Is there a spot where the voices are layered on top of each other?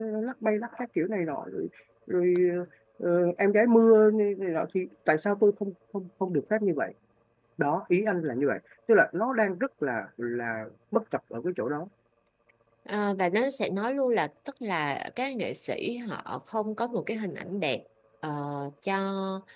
No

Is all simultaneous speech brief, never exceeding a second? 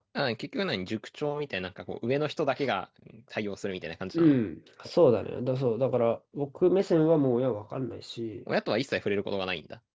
Yes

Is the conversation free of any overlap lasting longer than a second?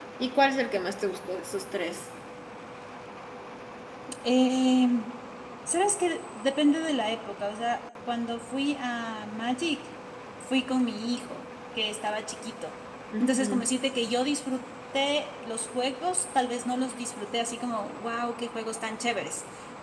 Yes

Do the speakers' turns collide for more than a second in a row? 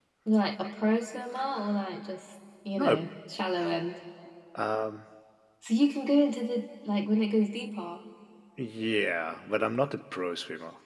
No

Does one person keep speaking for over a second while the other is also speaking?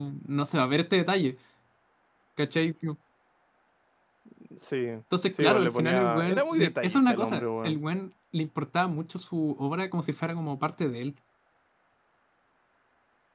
Yes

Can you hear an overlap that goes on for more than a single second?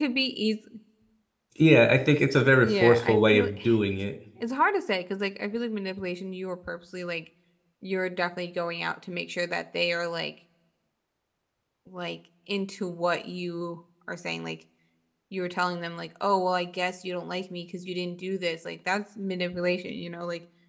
Yes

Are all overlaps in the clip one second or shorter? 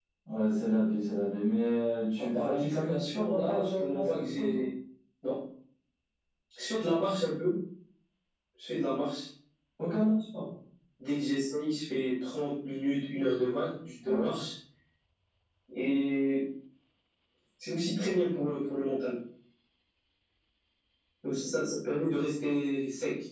No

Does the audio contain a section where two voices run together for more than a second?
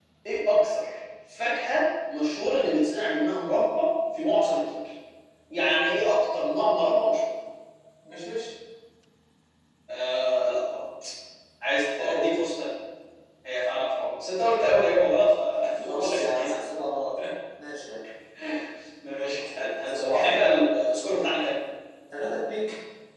Yes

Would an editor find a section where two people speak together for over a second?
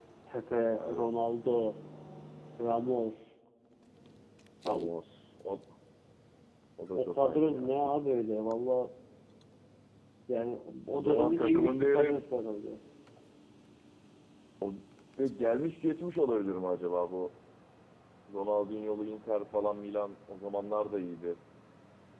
Yes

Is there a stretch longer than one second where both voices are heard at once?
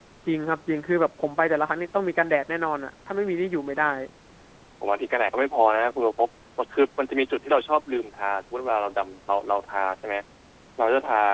No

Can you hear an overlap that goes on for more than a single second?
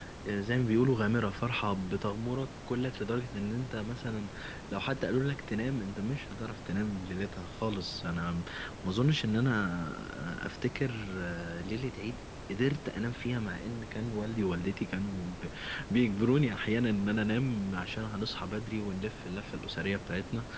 No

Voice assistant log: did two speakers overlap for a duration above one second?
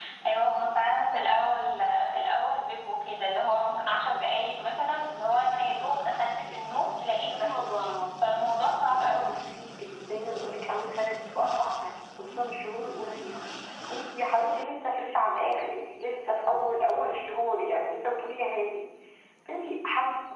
No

